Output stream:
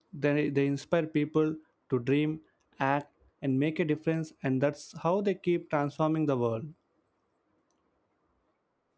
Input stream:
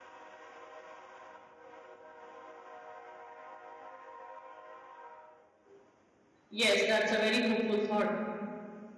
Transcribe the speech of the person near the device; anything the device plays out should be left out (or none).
Yes, that's a very hopeful thought.